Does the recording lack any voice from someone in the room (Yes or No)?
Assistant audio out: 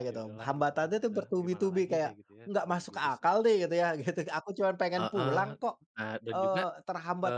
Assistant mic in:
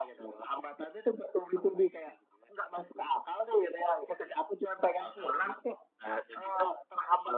Yes